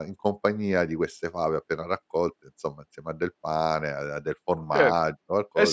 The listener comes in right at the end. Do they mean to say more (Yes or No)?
Yes